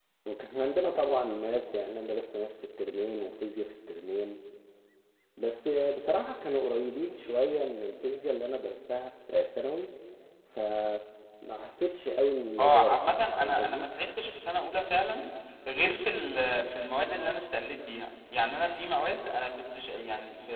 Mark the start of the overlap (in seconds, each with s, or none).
12.6 s